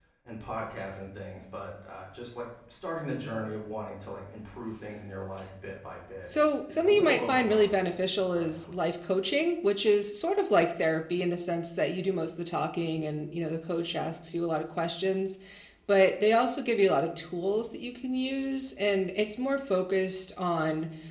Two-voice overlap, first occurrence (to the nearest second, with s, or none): 6 s